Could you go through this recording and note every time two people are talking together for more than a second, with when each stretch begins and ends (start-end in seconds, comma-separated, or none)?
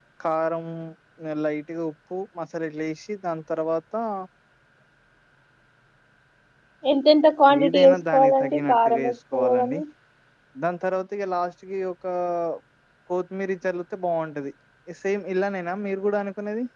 7.6-9.8